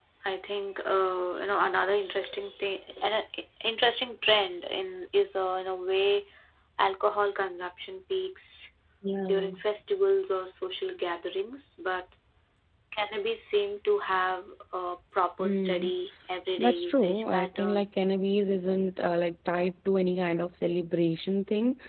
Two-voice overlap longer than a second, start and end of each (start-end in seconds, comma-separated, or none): 16.6-17.9